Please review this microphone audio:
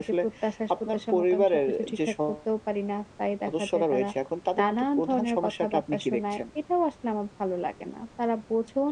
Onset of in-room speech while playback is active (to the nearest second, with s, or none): none